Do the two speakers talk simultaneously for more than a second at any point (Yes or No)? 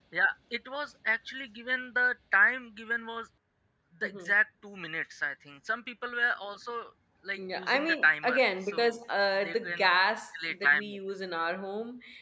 Yes